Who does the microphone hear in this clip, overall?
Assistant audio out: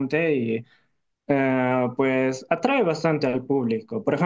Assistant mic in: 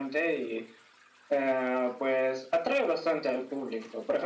echo only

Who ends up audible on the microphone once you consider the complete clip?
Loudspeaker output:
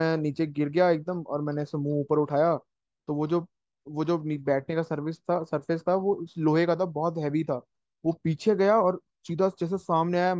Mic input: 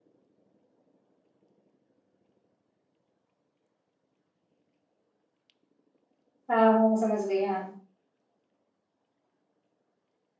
user only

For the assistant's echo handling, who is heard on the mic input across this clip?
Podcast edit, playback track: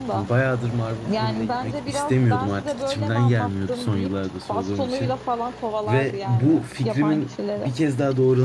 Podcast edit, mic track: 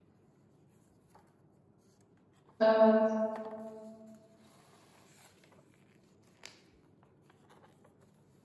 user only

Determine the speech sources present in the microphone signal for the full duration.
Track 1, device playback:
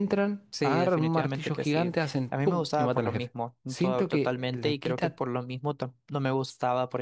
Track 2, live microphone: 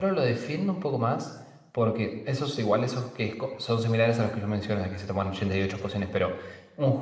user only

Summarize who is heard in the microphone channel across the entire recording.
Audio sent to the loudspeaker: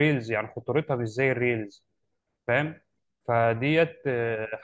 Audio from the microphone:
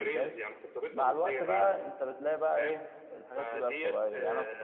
both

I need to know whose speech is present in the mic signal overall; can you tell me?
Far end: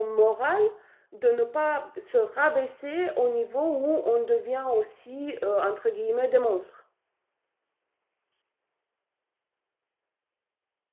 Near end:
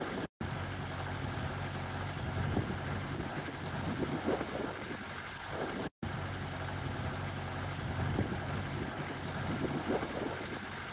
neither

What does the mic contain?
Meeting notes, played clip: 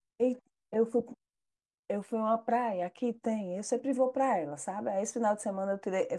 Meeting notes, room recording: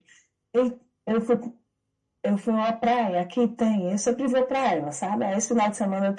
echo only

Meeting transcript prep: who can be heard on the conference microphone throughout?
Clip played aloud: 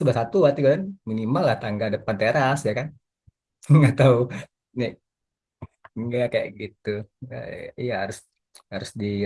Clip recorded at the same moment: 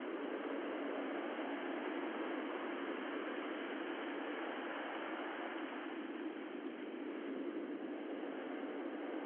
neither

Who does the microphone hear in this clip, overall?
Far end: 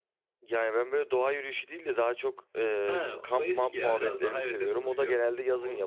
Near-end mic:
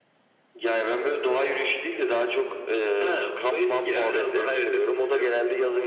echo only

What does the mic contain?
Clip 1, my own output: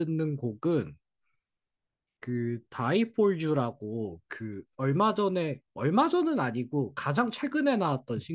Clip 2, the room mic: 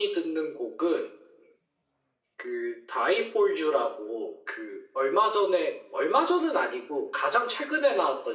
echo only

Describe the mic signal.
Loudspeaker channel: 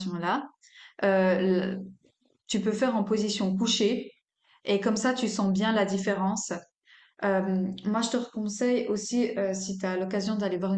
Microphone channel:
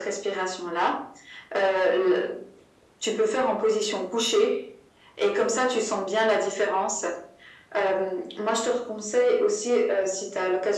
echo only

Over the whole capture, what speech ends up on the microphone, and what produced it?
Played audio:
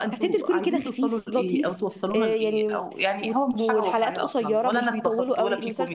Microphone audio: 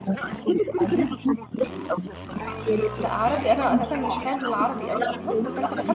both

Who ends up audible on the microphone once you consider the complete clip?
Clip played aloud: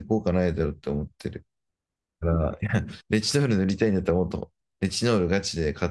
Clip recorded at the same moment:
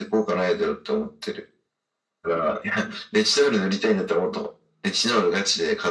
echo only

